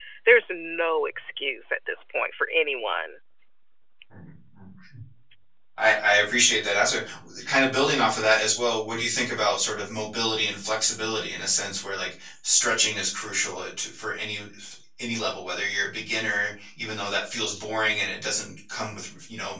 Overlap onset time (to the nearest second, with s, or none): none